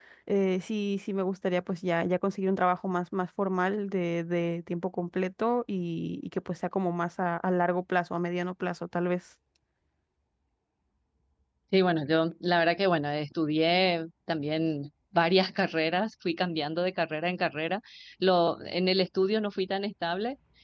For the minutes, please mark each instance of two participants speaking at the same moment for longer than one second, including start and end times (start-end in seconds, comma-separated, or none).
none